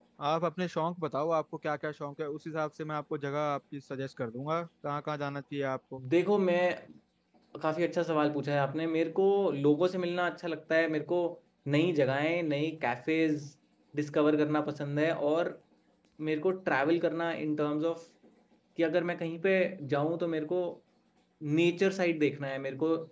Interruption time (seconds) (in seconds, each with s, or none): none